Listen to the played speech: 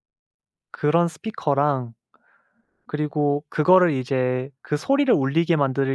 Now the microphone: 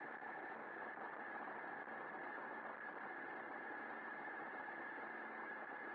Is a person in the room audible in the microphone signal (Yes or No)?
No